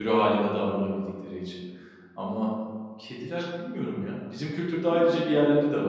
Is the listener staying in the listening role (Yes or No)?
Yes